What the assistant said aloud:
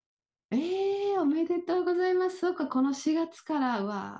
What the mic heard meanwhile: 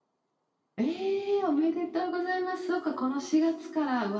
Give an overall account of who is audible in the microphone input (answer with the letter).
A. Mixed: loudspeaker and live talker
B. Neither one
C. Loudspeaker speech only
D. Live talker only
C